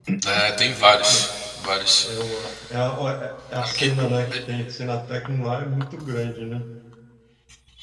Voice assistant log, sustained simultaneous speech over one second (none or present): none